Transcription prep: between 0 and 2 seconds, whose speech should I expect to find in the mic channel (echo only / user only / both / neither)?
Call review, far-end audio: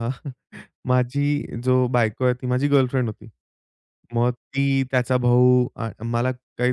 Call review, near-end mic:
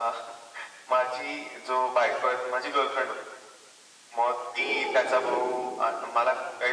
echo only